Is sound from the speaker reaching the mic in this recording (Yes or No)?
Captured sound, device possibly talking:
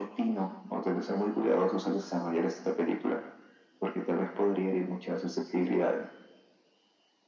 Yes